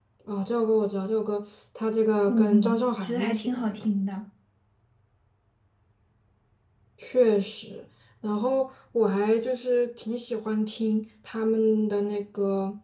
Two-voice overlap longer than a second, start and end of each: 2.2-3.9

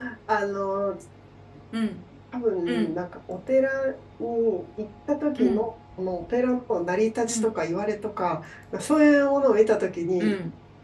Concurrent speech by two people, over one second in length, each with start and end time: none

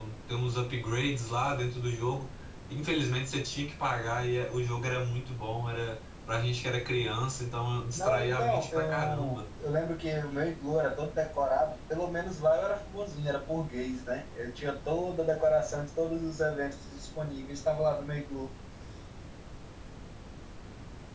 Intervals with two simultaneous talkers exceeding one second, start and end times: 7.9-9.5

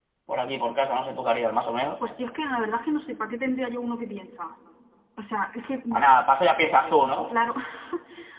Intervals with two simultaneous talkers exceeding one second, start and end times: none

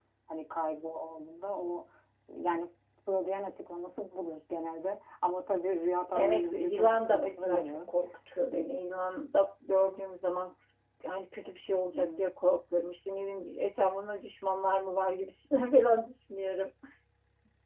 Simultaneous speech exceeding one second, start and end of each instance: 6.1-7.9

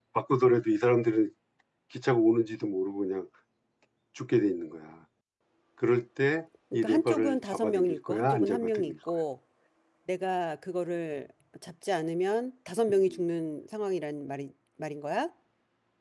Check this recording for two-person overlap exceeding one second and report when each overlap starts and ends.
6.7-8.9

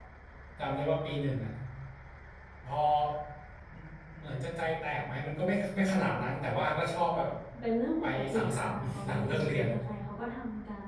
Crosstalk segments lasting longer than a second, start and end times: 8.0-9.7

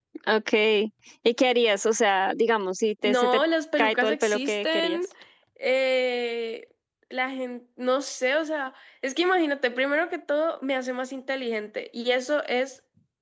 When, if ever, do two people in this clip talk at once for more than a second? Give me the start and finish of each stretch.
3.8-5.0

